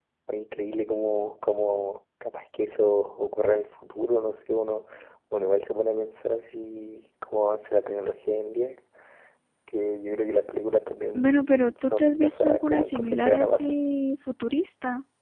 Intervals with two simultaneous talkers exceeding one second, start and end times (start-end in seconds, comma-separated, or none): 11.1-13.8